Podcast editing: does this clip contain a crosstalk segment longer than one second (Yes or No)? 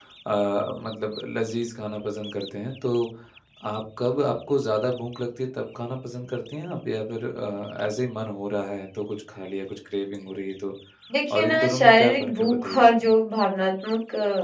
Yes